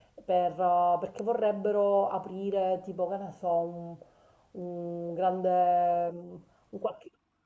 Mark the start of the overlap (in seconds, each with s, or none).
none